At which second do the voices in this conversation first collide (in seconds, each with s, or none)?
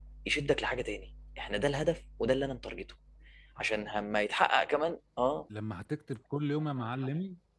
none